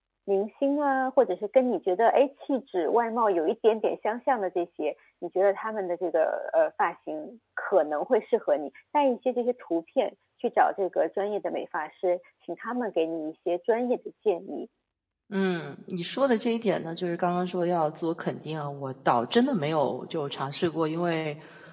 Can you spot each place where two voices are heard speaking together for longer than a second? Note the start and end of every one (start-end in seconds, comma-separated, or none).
none